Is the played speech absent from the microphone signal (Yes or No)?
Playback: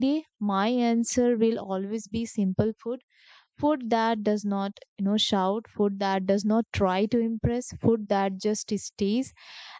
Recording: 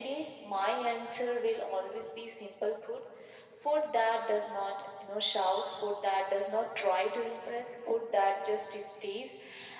No